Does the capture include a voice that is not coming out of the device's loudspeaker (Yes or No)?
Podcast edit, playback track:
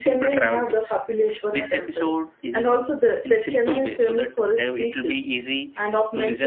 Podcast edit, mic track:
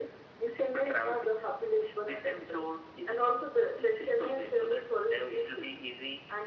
No